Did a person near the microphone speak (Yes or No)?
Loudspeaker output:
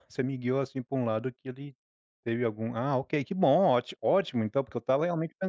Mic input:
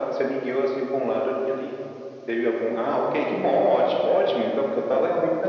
No